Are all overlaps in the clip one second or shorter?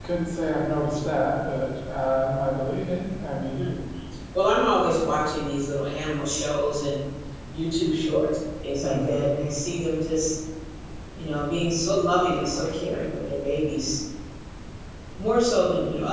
Yes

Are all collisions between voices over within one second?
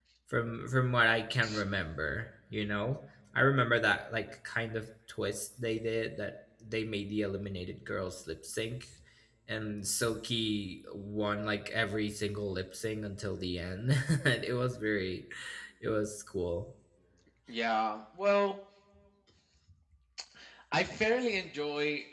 Yes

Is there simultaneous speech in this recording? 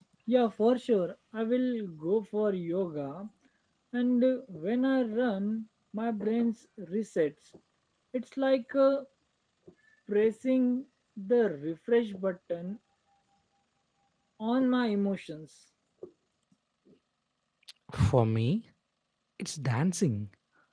No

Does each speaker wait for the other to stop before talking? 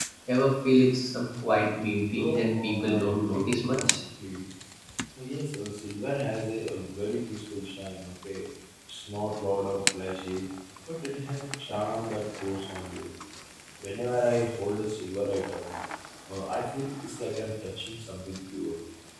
No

